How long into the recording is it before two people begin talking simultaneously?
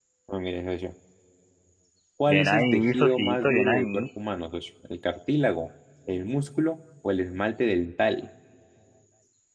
2 s

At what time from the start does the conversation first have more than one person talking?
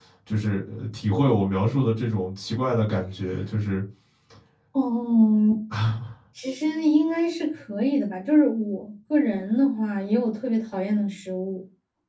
none

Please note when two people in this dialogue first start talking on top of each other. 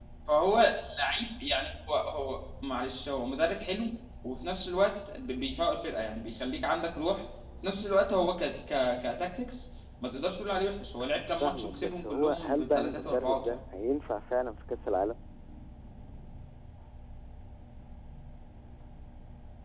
11 s

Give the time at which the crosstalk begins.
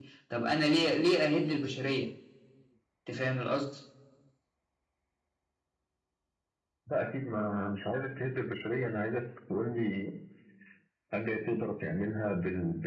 none

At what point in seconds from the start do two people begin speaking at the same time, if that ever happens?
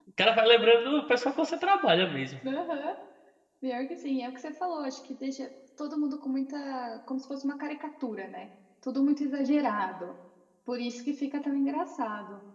none

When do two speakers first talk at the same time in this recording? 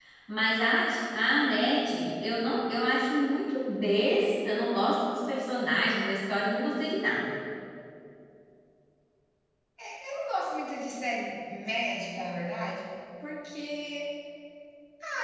none

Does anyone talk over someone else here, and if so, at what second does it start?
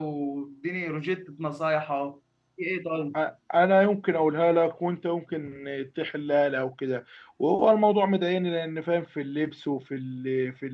none

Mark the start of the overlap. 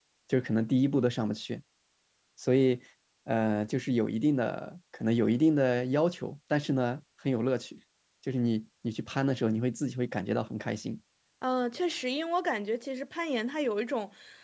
none

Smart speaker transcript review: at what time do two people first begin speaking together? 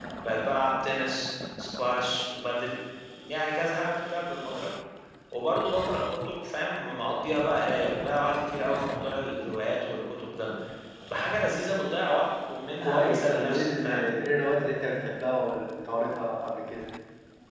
13 s

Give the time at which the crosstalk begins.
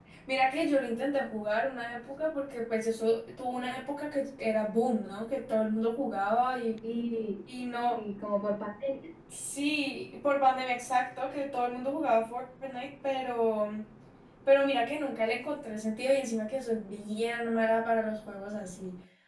none

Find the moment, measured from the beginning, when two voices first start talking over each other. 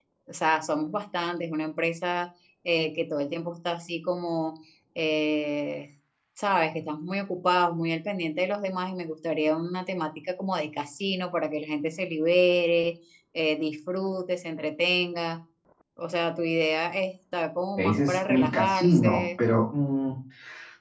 18 s

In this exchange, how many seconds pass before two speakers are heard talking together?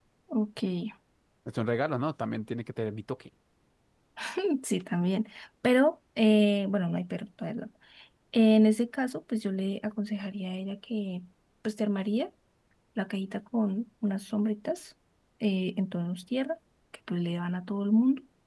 none

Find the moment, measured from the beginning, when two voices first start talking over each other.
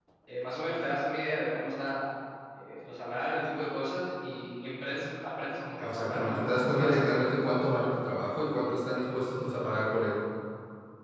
6 s

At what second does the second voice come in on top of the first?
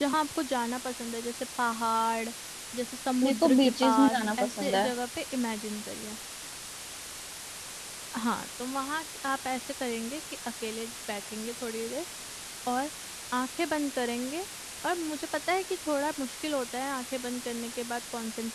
3 s

